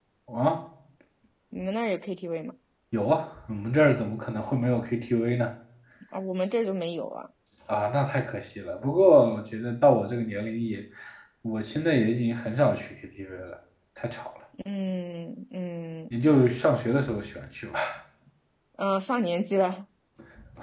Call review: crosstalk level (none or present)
none